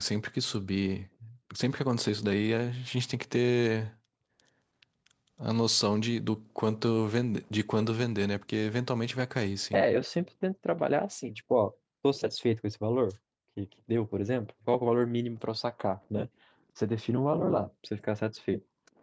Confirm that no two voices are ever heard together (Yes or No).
Yes